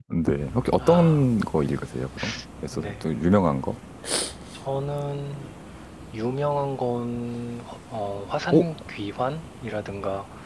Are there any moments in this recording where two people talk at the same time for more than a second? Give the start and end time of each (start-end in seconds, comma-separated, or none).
none